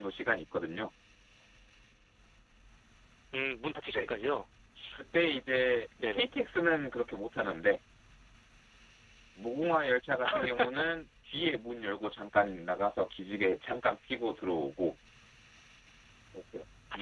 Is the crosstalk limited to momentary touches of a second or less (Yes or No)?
Yes